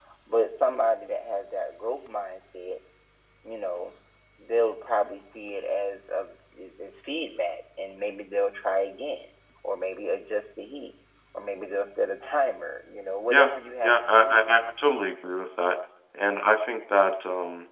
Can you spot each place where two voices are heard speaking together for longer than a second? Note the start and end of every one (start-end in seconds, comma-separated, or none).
13.3-14.6